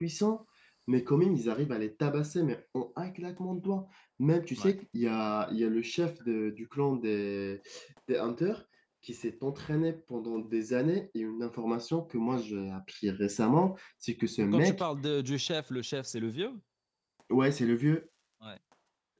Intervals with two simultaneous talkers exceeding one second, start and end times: none

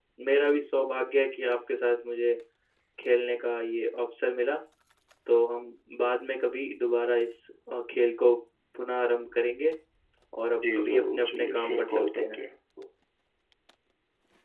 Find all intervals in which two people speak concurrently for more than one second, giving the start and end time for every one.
10.6-12.4

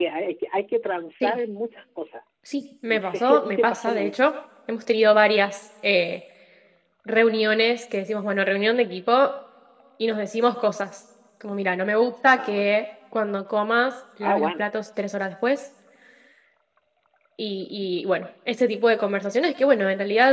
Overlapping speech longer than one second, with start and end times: 2.9-4.3

